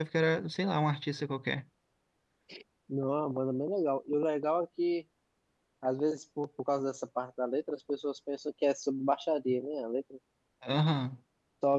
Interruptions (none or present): none